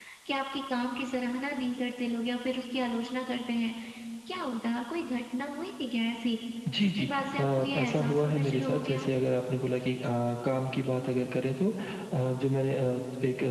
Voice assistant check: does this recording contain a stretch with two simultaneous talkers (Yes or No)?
Yes